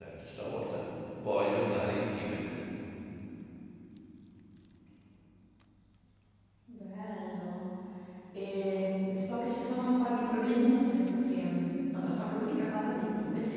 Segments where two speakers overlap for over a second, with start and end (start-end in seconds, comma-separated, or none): none